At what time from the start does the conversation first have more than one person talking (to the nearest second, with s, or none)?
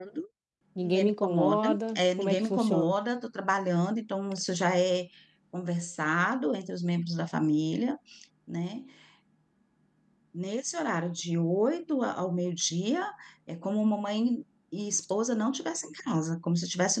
1 s